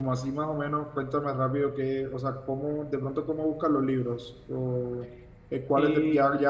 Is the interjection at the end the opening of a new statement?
No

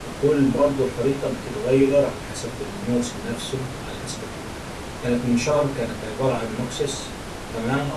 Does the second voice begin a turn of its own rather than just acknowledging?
Yes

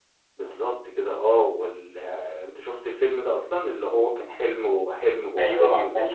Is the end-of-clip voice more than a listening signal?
Yes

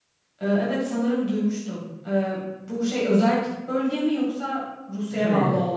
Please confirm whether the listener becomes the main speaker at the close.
Yes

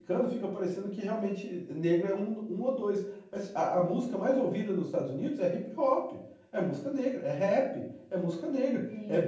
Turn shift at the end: No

